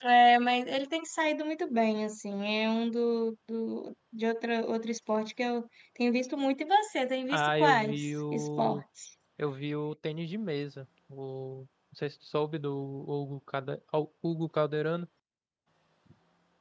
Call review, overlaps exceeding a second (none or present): present